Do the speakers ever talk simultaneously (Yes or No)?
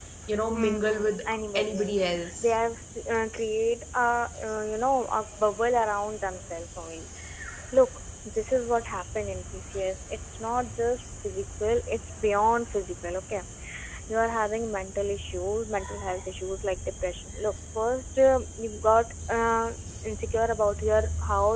Yes